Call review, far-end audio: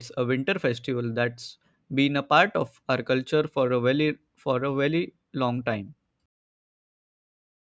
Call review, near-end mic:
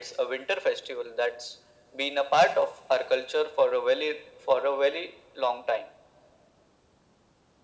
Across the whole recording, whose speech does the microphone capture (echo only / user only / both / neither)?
echo only